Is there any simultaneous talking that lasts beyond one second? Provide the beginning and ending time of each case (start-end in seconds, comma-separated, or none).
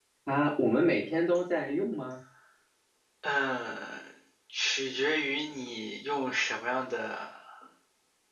none